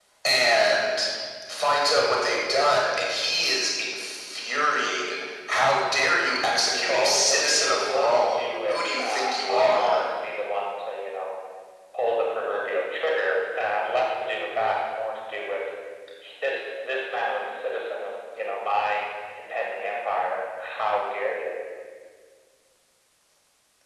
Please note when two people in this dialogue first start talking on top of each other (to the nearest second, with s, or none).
7 s